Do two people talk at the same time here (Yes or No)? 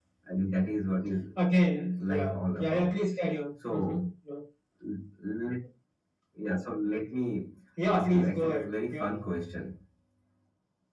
Yes